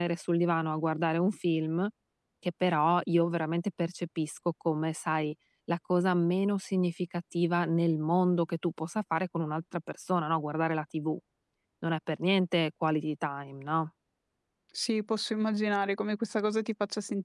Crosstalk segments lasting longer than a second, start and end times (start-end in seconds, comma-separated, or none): none